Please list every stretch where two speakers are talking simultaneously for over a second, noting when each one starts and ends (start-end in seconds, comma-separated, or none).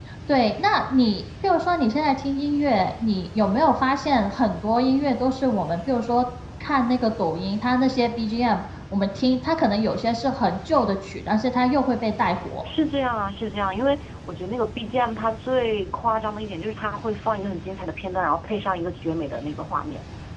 none